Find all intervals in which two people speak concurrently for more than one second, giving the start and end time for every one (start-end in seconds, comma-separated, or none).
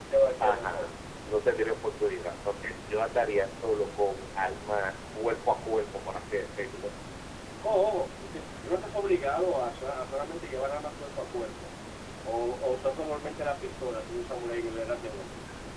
none